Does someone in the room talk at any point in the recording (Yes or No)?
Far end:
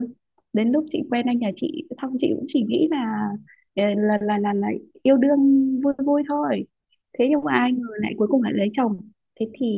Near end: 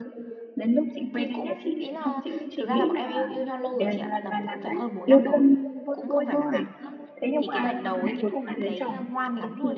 Yes